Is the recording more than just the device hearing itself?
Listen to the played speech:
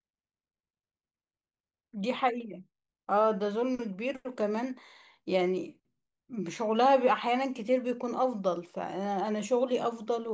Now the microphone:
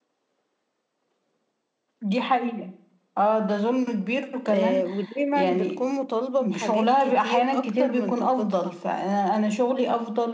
Yes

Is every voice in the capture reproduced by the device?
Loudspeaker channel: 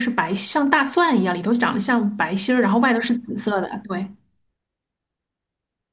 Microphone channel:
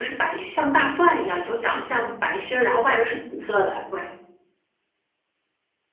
Yes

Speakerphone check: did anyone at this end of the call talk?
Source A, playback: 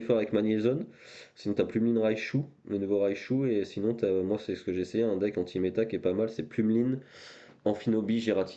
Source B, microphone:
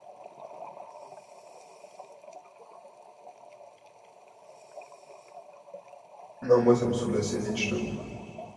Yes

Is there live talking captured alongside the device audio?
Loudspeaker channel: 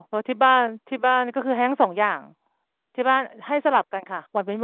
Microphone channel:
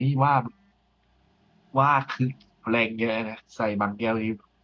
Yes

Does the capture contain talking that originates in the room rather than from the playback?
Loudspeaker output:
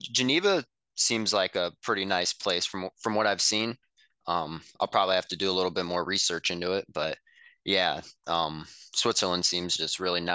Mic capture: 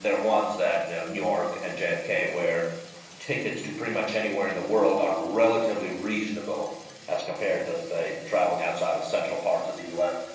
Yes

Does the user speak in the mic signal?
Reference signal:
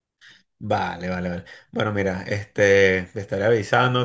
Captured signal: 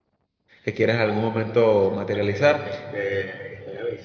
Yes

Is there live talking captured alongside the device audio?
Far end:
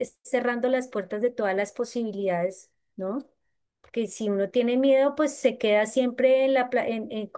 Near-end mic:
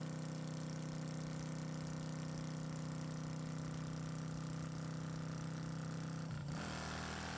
No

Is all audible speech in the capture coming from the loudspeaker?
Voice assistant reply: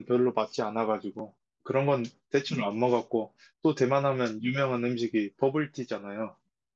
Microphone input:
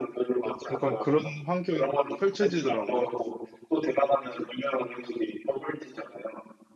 No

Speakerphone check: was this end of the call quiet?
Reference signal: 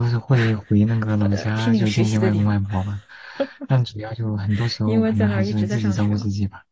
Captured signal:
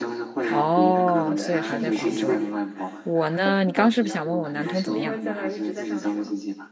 No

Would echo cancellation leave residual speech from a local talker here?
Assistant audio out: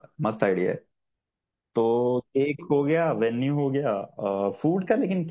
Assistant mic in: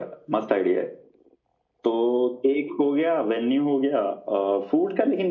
No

